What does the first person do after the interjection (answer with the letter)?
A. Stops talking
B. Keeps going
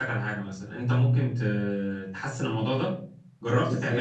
B